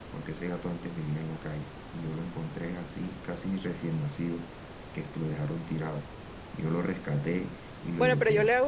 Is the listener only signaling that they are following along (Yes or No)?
No